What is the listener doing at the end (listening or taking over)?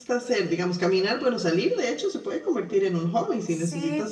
taking over